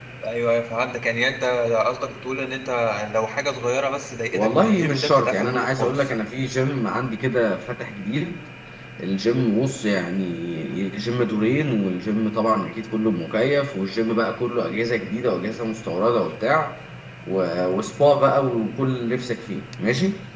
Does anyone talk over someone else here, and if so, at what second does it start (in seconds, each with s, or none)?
4.3 s